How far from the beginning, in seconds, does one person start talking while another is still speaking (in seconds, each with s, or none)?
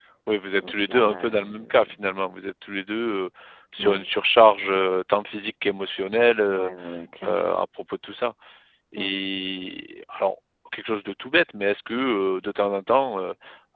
0.6 s